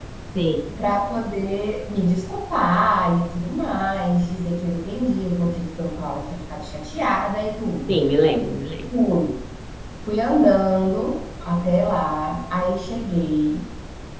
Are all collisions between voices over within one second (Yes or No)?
Yes